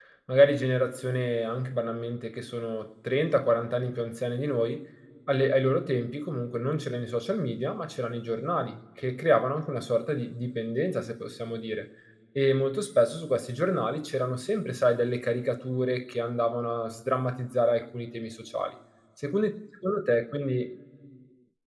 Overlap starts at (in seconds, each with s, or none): none